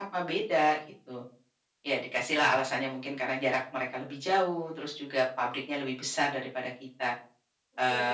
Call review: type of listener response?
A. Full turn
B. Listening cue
B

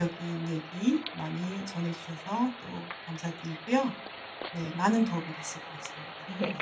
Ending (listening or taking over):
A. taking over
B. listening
A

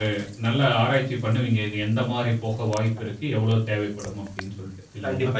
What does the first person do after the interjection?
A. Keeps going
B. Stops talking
B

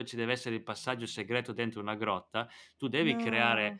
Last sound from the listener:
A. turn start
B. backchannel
B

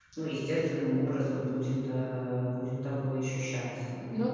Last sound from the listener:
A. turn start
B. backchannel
A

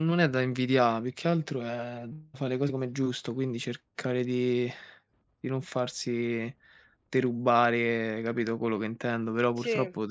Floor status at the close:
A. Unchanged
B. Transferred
A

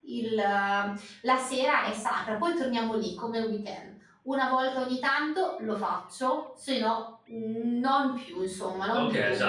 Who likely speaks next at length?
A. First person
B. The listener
B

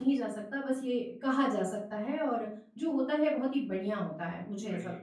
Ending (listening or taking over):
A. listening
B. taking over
B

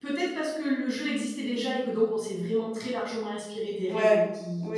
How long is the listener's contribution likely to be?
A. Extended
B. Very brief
A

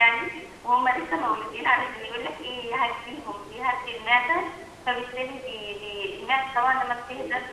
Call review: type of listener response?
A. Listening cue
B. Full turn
A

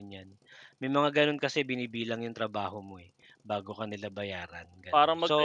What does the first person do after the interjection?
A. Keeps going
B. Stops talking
B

